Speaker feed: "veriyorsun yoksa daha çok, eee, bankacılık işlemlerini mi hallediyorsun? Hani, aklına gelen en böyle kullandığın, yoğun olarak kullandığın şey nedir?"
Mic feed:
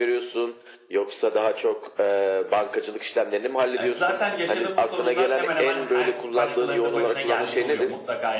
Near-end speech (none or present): present